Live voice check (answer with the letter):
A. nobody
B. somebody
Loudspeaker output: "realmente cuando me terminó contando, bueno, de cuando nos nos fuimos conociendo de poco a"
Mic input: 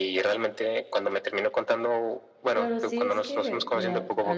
B